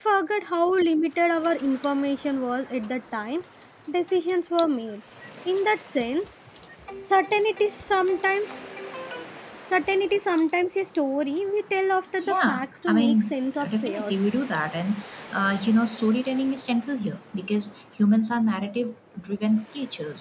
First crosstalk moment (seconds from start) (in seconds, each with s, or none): 12.2 s